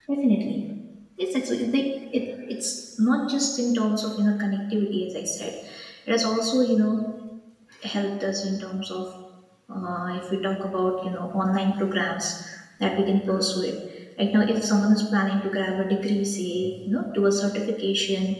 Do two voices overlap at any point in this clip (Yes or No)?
No